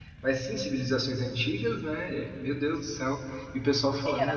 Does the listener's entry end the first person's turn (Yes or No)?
Yes